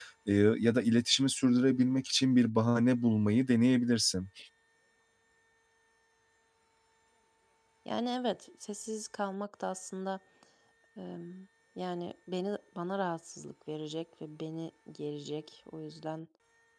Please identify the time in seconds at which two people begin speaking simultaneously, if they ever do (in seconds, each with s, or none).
none